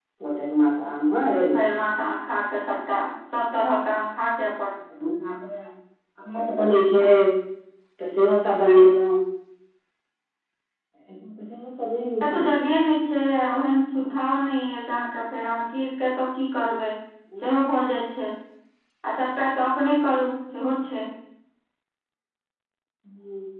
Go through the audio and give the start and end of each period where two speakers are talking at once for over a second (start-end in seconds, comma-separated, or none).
none